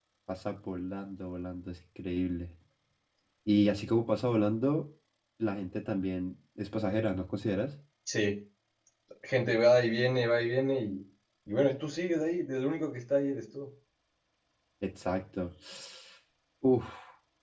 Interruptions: none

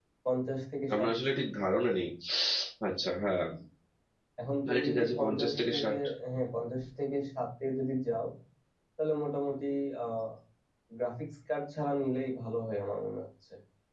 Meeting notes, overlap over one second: present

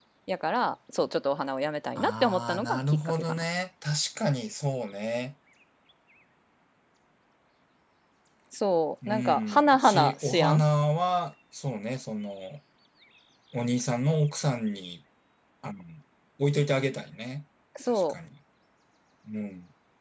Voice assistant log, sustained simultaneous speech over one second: present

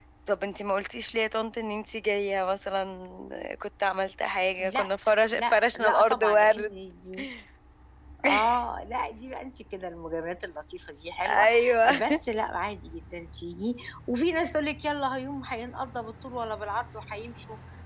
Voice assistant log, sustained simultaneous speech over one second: present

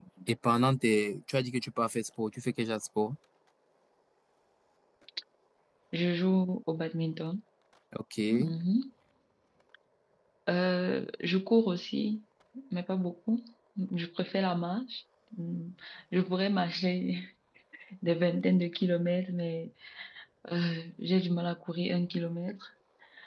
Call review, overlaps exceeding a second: none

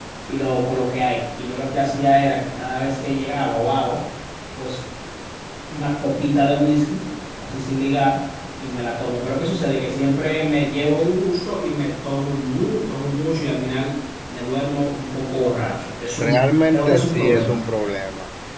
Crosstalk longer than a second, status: present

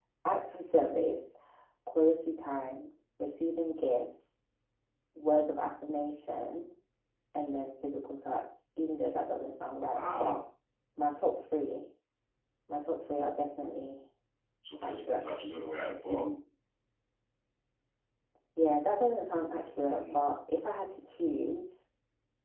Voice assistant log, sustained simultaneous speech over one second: none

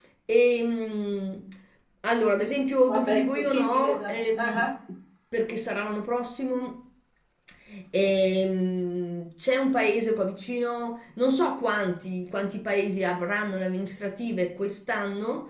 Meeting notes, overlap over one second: present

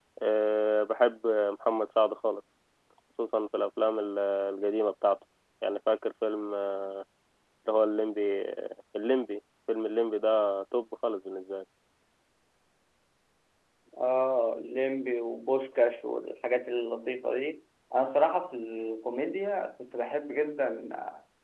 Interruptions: none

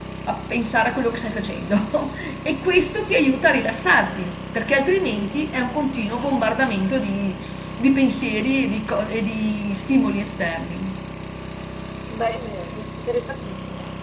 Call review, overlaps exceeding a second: none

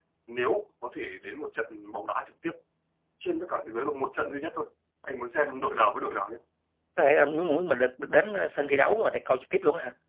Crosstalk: none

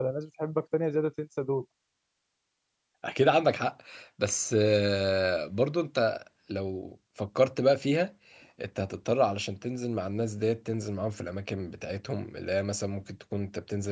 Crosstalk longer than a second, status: none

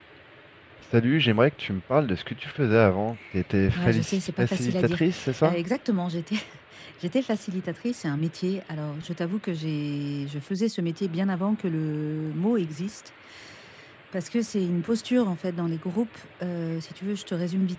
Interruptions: present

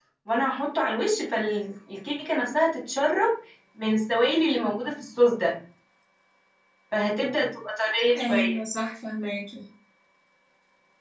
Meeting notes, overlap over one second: none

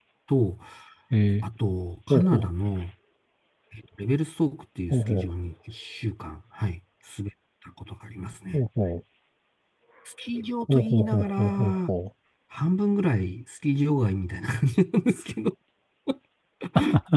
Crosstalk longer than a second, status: present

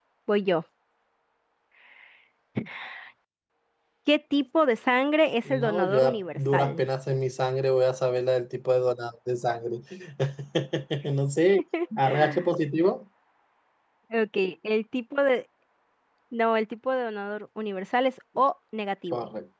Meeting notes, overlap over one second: present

